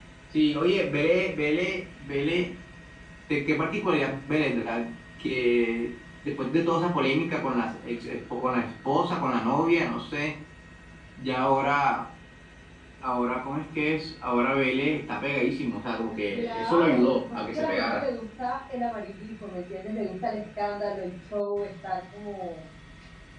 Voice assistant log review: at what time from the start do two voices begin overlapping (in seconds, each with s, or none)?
16.3 s